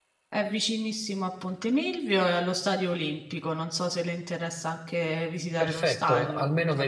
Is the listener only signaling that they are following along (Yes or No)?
No